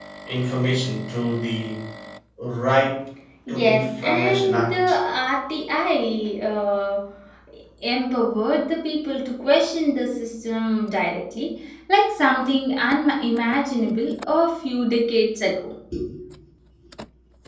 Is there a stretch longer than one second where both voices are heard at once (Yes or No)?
Yes